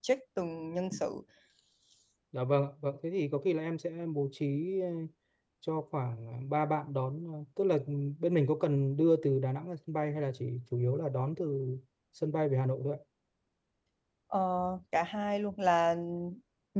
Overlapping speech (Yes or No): No